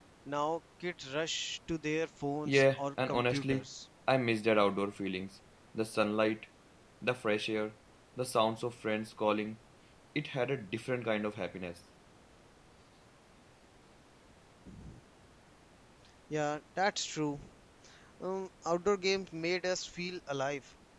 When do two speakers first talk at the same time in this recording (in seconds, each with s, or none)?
2.5 s